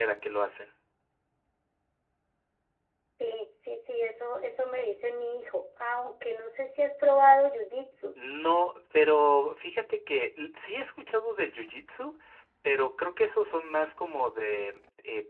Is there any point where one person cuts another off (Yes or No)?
No